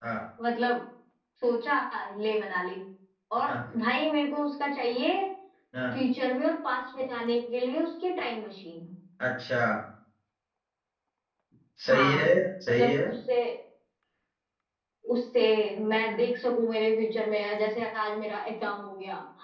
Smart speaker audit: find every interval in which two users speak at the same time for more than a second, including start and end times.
none

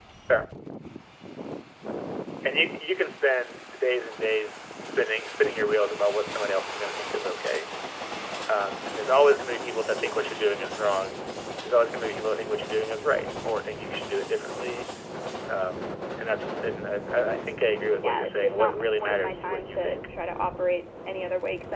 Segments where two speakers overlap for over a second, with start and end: 18.0-20.0

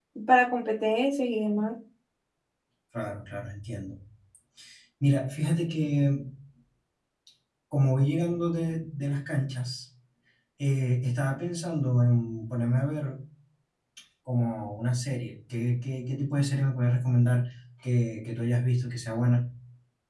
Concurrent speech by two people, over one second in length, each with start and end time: none

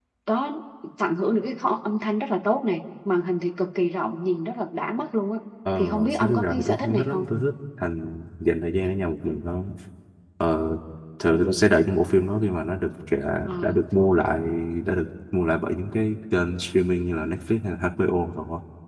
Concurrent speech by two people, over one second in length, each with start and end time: 5.8-7.2

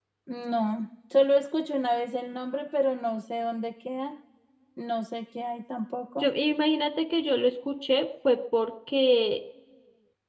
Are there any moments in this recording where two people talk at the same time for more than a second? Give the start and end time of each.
none

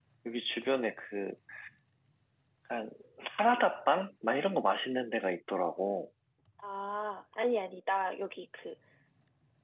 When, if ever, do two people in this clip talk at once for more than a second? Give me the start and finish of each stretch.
none

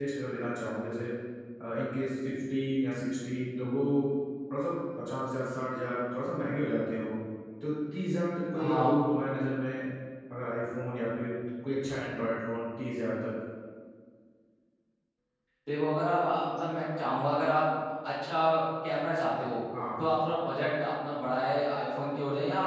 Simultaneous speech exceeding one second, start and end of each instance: none

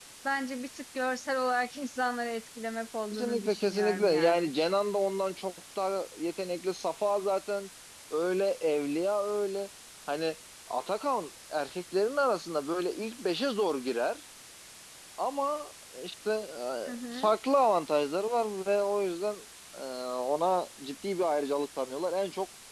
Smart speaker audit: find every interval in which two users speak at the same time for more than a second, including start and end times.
3.1-4.5

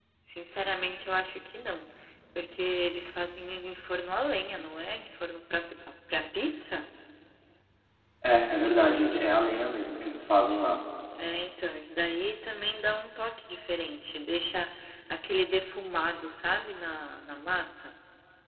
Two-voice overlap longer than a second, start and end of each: none

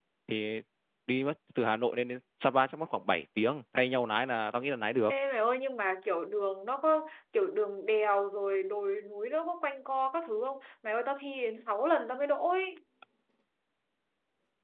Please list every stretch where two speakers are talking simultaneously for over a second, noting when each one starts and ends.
none

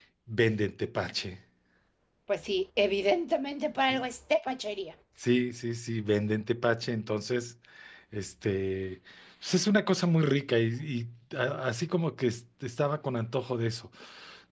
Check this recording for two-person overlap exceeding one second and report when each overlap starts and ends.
none

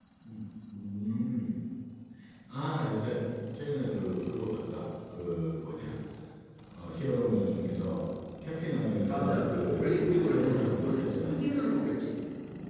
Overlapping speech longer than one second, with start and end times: 9.0-11.4

